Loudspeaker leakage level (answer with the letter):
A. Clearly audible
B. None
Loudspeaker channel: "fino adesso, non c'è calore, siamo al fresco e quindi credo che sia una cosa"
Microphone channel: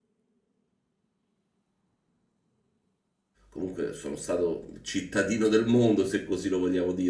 B